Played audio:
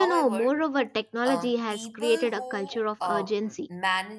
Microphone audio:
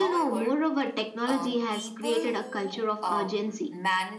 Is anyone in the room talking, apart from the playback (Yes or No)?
No